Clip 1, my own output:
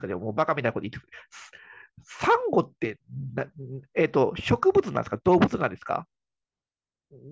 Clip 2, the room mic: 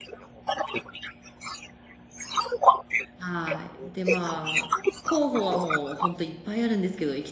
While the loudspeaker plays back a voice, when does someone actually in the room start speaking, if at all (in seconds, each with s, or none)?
3.2 s